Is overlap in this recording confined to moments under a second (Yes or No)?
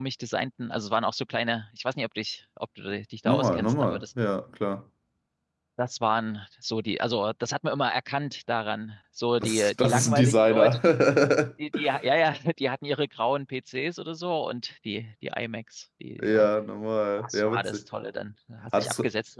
No